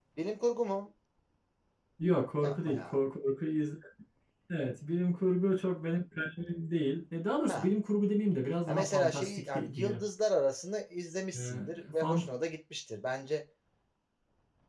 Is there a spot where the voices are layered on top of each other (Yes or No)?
Yes